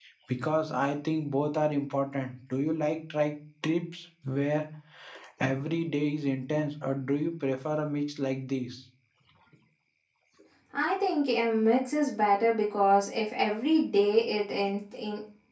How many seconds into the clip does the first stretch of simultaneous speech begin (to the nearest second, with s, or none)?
none